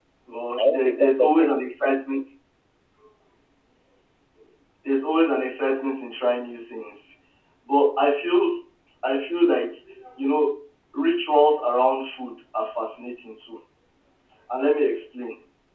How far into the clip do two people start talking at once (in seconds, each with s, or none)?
0.6 s